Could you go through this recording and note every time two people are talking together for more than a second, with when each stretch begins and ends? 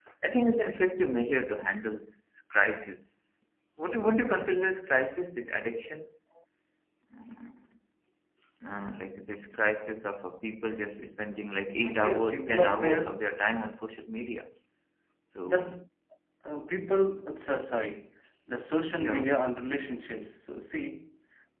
11.8-13.2

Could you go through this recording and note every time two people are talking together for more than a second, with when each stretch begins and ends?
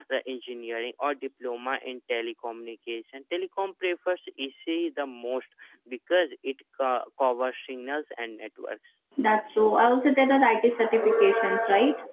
none

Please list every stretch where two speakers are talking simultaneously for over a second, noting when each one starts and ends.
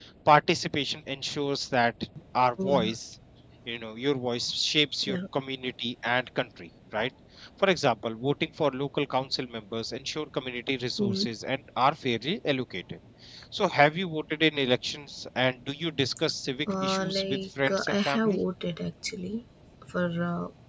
16.8-18.4

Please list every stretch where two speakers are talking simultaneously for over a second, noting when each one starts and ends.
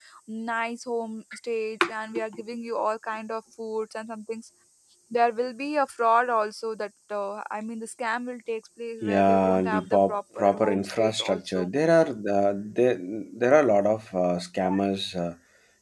9.0-11.7

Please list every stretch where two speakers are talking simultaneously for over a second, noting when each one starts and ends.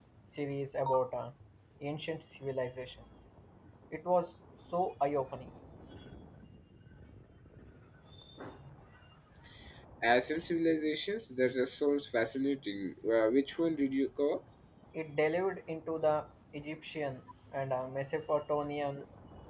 none

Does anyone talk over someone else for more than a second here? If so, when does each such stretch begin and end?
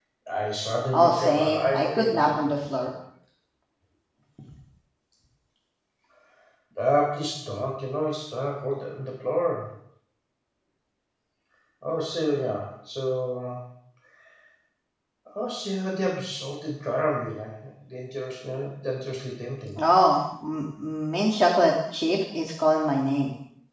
0.9-2.5

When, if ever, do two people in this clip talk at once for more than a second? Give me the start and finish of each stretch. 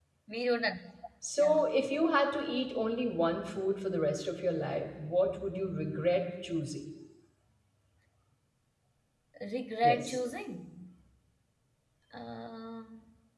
none

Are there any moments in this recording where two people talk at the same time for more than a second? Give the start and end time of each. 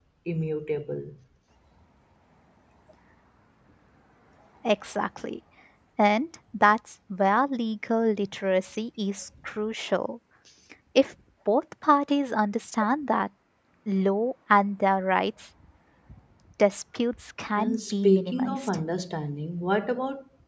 17.6-18.8

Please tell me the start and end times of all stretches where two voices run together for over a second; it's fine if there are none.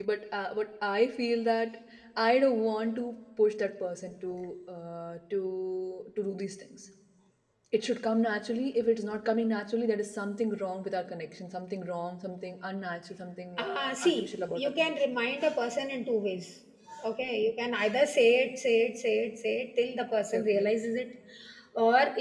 13.6-14.9

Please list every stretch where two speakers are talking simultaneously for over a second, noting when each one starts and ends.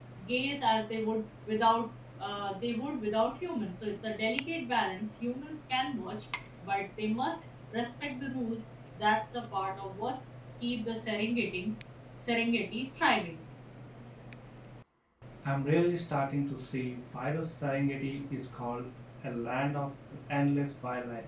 none

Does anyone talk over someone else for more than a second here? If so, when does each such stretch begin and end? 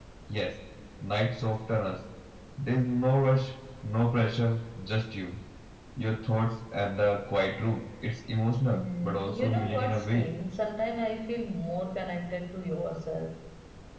8.7-10.3

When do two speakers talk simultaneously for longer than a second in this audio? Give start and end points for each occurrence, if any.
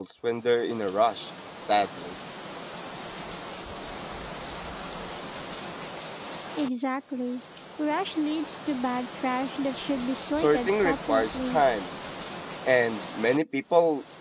10.4-11.6

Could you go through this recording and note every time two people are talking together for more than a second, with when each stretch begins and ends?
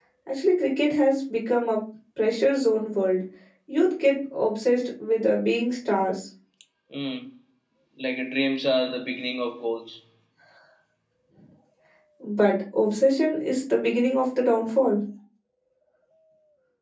none

